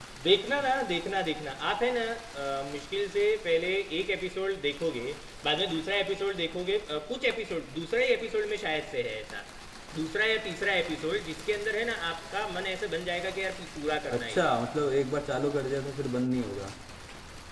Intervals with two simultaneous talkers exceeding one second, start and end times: none

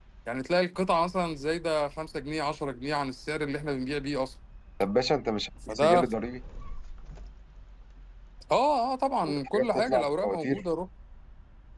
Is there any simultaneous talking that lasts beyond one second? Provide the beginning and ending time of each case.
9.2-10.6

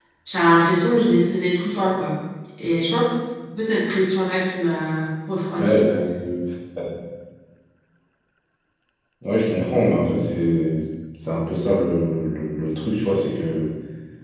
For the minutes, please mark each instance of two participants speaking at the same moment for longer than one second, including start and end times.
none

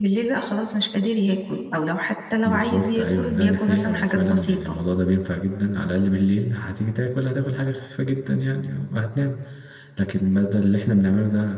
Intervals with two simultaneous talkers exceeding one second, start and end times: 2.5-4.7

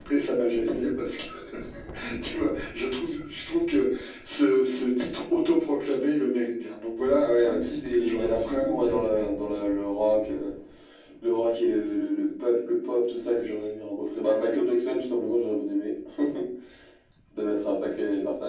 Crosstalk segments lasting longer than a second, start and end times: 7.1-9.7

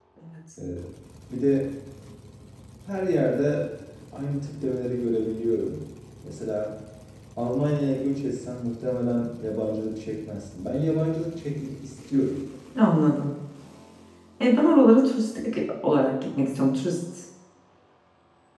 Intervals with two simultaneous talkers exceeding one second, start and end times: none

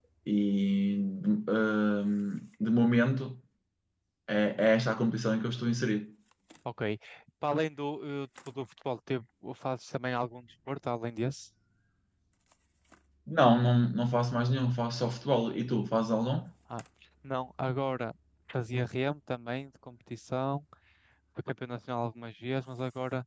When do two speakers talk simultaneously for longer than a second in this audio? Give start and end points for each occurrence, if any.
none

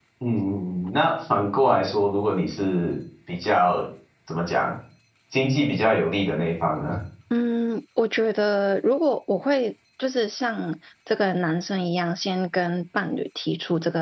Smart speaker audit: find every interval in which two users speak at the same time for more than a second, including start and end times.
none

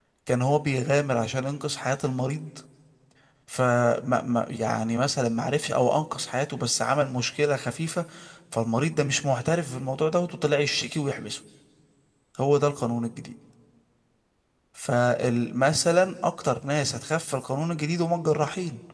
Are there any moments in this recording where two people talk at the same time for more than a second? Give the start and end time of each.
none

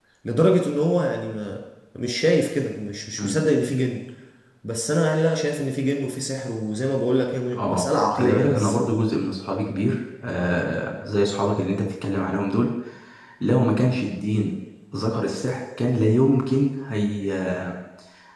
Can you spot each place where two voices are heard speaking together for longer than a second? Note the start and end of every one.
7.5-8.8

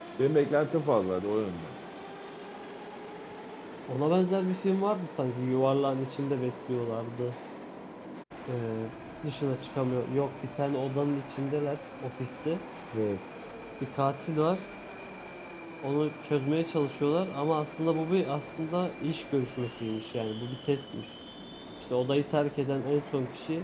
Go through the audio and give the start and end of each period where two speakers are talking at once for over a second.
none

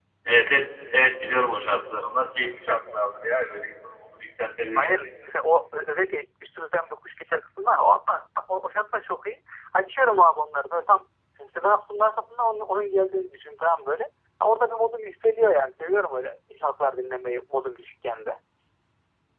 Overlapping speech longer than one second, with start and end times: none

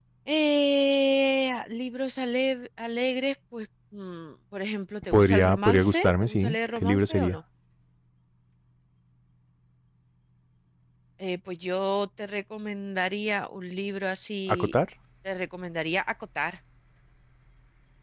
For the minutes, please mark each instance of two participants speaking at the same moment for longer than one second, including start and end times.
5.1-7.4

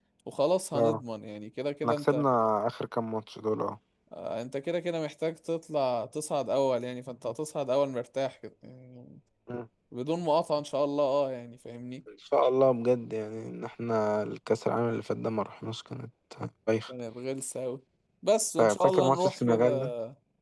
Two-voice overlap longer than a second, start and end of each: 18.6-19.9

